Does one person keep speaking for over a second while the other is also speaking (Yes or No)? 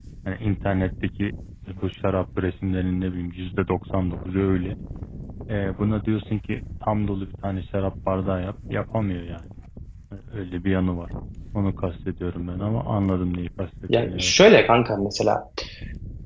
No